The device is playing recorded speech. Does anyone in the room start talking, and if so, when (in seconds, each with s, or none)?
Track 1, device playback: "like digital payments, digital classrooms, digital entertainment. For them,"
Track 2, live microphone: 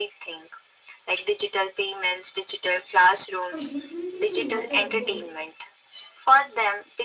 3.4 s